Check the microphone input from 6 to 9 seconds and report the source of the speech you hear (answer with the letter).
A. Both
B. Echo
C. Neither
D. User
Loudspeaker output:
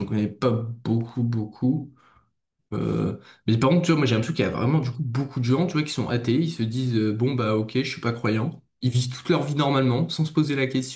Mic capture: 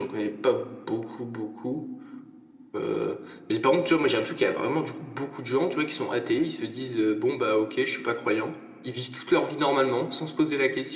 B